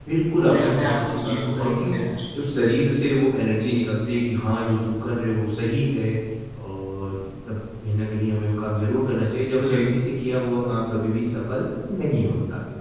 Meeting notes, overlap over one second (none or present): present